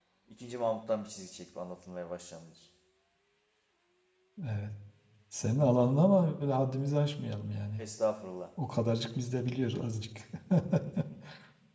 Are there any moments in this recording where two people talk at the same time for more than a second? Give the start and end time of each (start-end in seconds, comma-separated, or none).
none